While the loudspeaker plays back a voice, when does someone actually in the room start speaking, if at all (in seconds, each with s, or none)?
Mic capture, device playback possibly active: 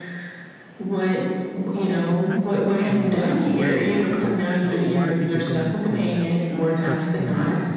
1.9 s